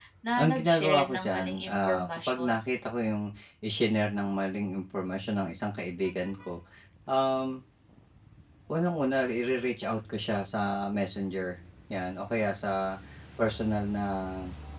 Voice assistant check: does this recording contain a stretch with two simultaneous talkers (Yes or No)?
Yes